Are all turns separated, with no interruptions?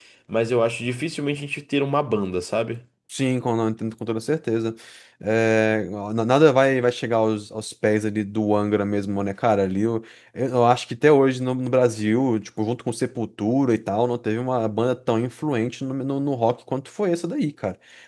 Yes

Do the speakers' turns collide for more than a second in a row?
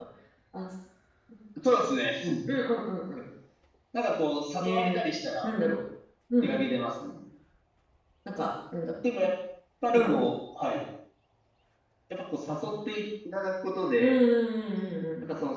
No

